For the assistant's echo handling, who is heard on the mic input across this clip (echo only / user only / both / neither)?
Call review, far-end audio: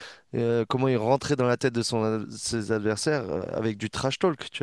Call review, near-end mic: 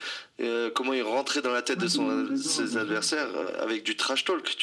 both